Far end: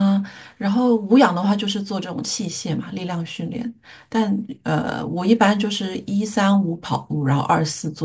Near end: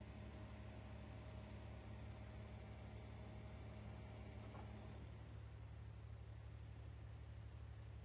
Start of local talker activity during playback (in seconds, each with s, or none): none